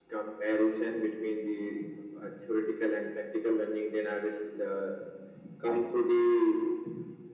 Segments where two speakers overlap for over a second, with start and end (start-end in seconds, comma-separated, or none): none